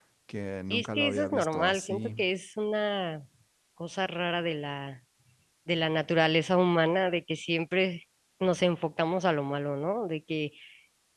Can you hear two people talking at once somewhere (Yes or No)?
Yes